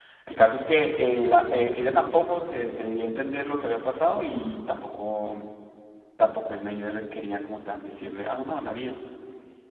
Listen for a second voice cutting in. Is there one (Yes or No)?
No